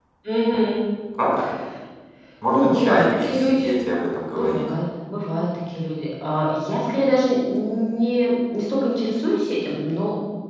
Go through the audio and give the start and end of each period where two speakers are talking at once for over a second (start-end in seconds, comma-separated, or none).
2.5-3.8